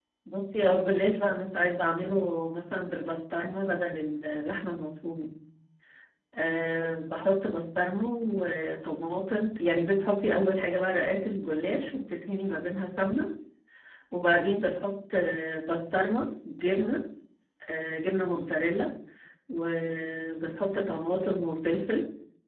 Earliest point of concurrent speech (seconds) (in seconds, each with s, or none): none